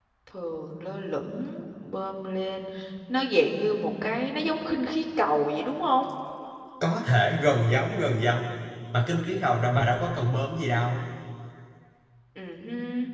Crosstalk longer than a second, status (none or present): none